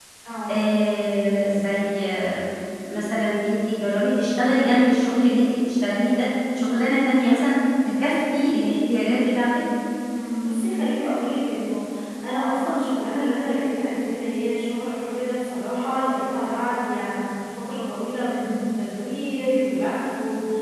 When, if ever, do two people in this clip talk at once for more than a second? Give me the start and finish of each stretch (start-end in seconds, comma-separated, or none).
none